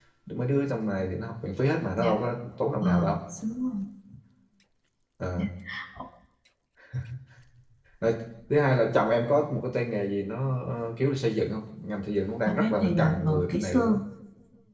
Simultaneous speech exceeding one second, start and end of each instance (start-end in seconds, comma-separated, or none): 12.4-14.0